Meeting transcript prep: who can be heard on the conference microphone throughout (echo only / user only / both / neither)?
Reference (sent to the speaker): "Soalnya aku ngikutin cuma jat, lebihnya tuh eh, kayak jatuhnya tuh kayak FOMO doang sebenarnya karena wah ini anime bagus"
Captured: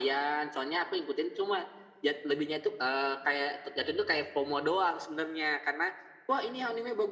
echo only